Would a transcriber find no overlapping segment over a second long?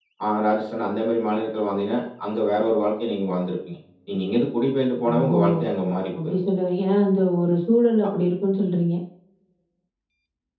Yes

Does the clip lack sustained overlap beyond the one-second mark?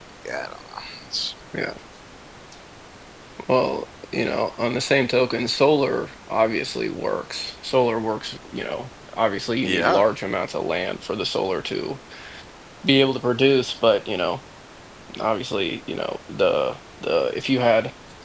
Yes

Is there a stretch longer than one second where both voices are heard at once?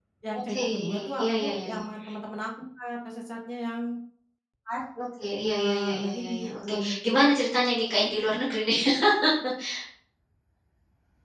Yes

